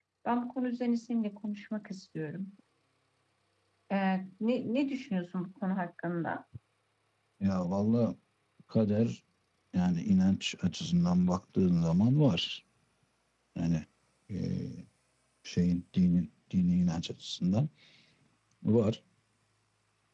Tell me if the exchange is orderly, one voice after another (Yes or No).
Yes